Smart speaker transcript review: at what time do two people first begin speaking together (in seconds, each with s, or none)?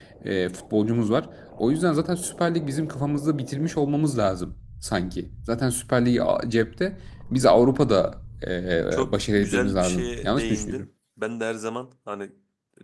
8.9 s